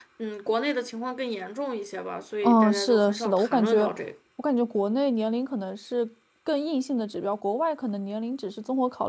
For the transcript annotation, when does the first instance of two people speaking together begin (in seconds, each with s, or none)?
2.4 s